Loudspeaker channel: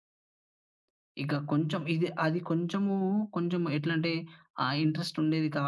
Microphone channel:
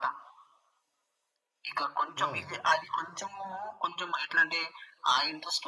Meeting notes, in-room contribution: present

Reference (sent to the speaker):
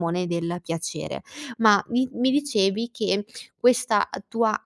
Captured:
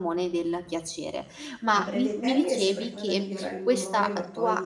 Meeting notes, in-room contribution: present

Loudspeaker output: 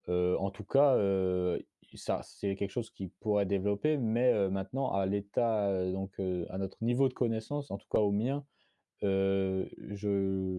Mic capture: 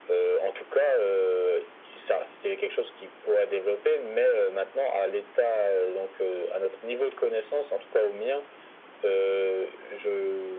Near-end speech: none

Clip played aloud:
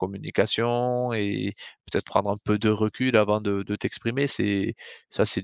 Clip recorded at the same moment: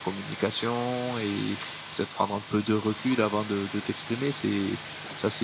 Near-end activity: none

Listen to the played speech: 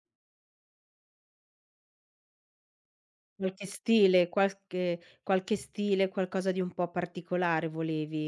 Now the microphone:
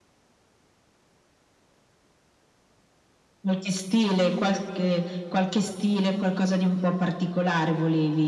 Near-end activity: none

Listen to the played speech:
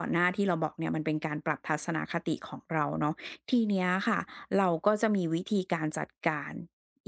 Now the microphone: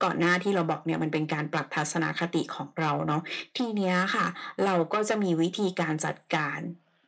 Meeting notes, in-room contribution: none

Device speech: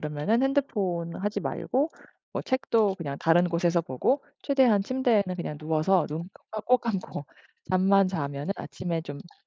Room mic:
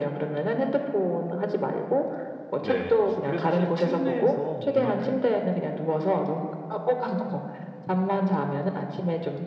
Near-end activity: present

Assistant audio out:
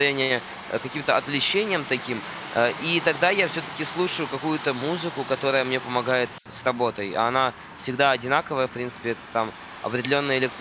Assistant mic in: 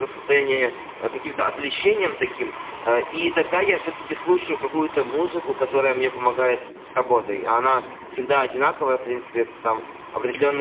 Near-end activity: none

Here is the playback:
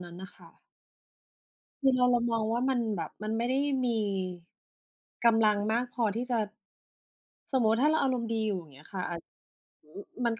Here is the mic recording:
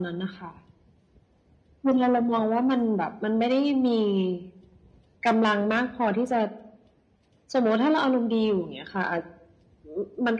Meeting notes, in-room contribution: none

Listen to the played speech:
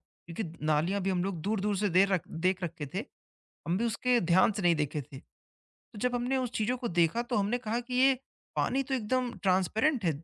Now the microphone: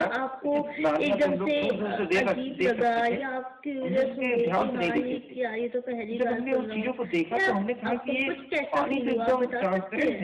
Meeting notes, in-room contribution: present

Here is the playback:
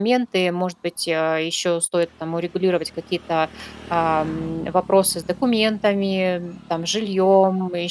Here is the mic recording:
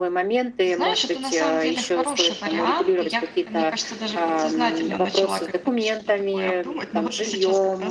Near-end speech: present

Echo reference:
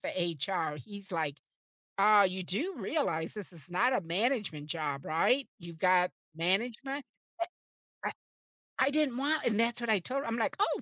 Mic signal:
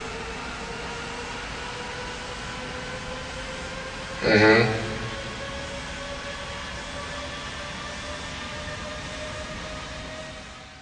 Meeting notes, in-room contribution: present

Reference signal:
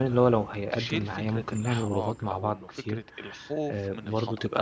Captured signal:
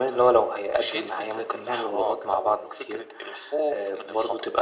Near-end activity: none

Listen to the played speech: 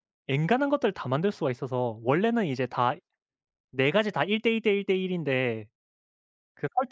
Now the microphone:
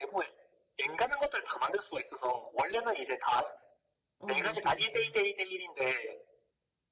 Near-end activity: present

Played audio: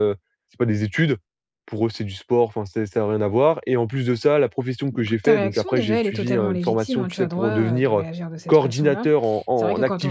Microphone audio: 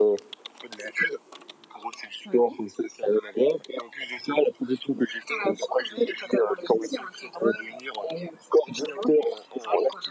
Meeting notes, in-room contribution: present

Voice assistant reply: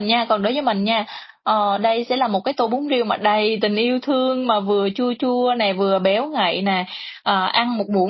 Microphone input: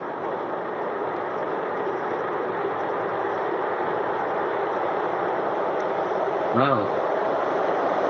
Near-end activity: present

